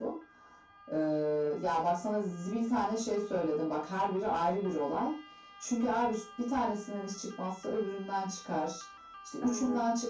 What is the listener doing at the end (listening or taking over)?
listening